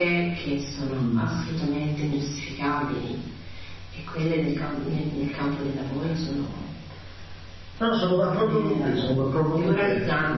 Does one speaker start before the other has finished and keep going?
Yes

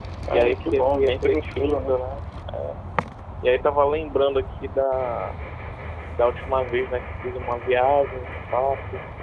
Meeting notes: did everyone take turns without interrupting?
No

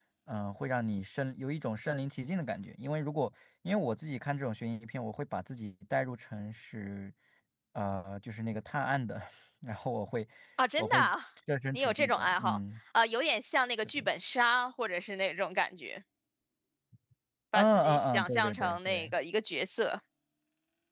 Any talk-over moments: Yes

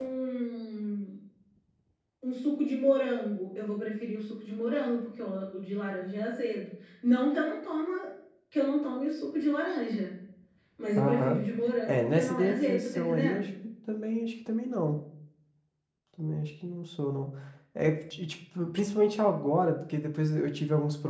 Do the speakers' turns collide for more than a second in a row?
Yes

